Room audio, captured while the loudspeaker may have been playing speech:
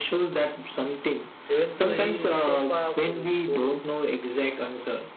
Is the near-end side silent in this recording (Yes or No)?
No